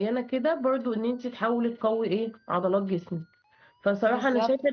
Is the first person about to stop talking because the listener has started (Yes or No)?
No